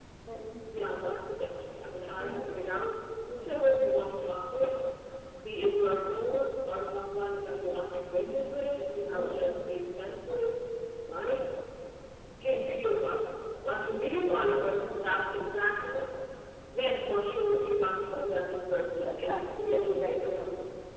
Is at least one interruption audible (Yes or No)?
Yes